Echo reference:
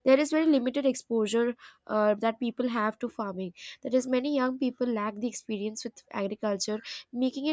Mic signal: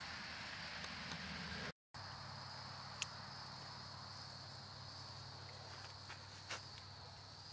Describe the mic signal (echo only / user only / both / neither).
neither